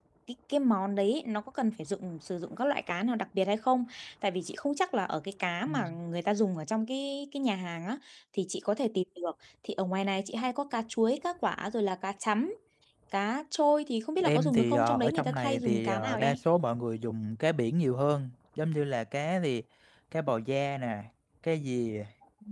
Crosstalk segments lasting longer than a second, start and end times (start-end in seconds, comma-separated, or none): 14.2-16.4